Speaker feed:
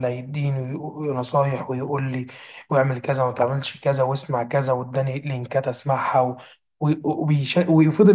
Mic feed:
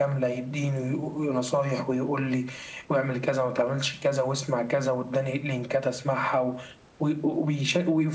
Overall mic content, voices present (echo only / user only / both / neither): echo only